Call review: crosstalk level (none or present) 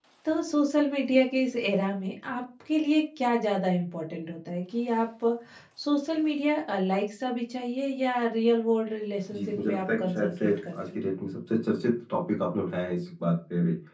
present